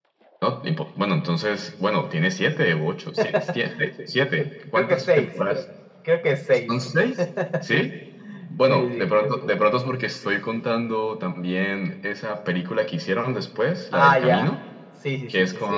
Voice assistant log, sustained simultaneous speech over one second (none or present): present